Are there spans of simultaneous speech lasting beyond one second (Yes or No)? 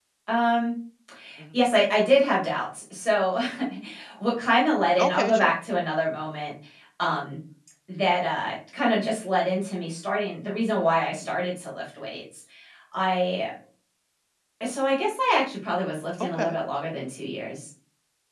No